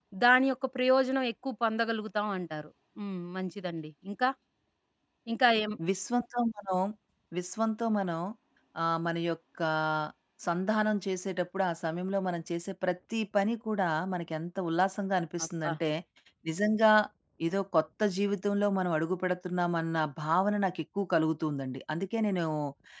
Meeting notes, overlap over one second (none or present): none